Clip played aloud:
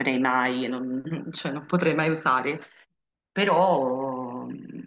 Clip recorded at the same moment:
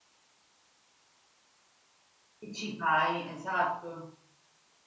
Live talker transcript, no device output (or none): Che ci fai? Esatto.